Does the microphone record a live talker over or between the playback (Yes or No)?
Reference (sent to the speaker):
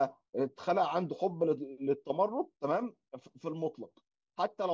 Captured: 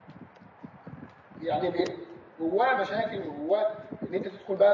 Yes